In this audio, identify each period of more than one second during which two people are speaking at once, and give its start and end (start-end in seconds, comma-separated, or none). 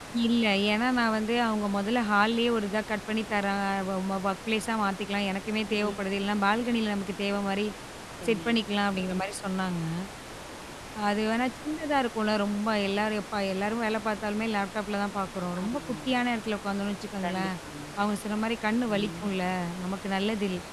none